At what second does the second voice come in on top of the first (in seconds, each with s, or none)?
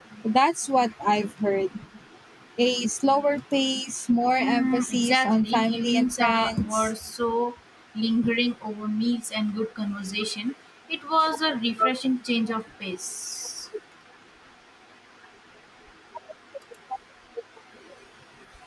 4.4 s